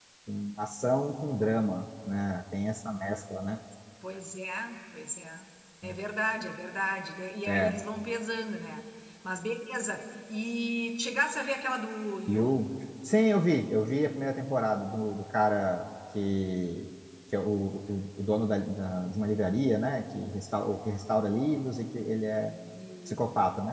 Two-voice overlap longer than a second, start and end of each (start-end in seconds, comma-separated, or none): none